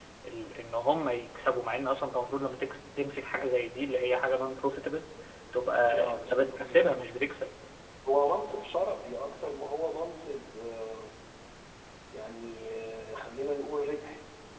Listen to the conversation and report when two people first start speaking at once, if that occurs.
5.8 s

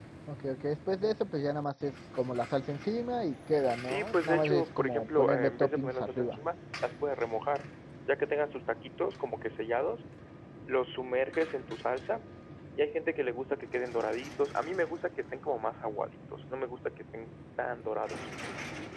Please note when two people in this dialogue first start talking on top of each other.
3.8 s

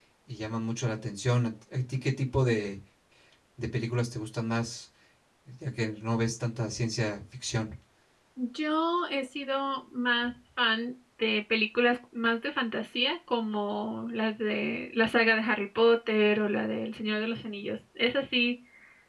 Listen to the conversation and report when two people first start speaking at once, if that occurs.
none

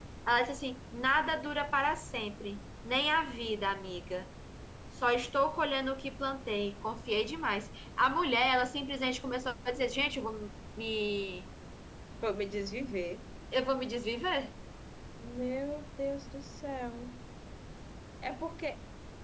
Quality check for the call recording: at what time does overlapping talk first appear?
none

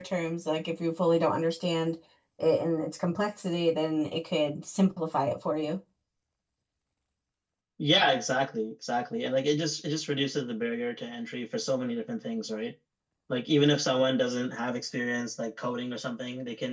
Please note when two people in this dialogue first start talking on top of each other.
none

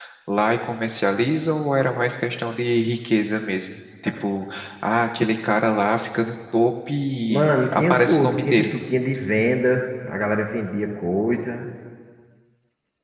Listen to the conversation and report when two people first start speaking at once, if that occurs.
7.3 s

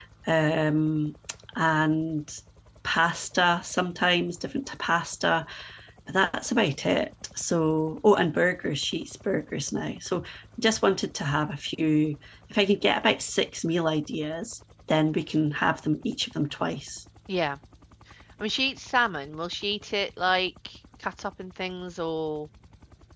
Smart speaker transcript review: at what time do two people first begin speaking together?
none

